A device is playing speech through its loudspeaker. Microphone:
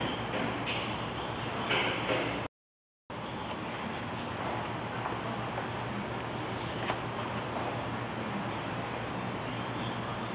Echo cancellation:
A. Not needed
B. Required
A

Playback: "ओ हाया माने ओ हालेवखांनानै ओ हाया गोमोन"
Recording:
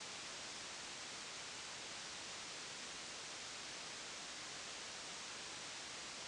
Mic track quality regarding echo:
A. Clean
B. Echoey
A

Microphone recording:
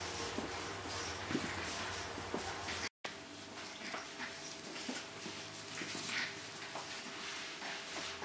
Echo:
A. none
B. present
A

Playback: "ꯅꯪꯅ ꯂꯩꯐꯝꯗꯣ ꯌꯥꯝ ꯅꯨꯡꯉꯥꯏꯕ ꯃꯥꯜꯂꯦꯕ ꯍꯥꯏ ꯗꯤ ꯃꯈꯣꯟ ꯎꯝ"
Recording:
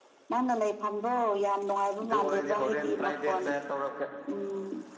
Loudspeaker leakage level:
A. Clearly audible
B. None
A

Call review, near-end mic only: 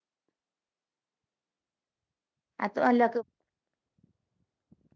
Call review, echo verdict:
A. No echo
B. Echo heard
A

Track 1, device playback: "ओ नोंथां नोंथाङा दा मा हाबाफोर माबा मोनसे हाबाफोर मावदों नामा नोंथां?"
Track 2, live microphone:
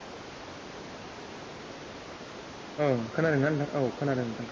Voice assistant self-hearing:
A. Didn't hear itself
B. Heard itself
A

